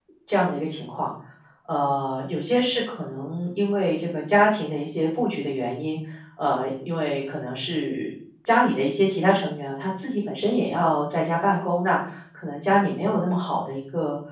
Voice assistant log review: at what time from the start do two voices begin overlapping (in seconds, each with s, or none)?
none